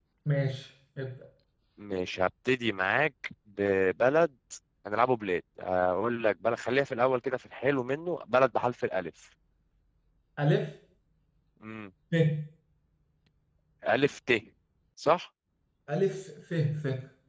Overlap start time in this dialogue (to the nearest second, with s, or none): none